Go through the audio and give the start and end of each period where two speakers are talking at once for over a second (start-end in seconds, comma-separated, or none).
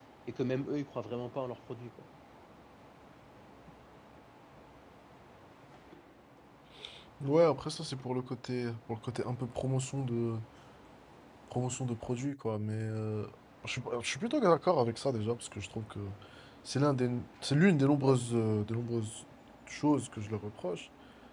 none